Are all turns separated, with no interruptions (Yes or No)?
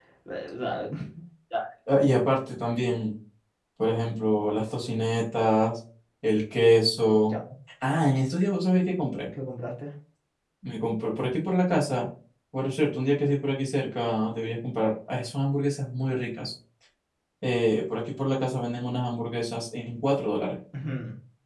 Yes